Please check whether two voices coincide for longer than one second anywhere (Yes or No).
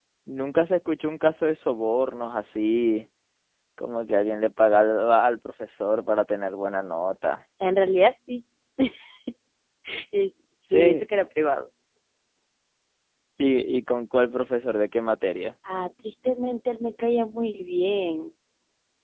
No